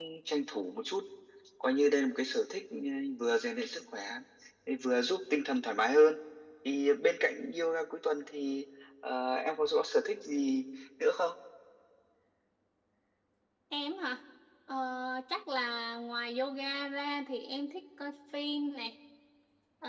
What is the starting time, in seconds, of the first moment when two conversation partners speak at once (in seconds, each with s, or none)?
none